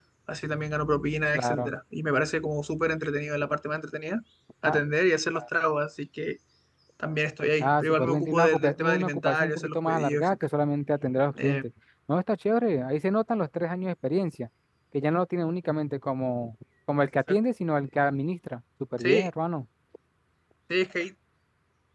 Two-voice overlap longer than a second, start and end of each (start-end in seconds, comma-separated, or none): 7.6-10.4